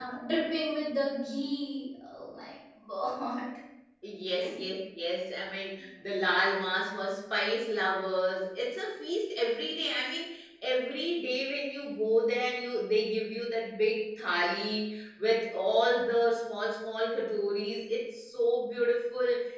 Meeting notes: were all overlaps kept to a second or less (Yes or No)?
Yes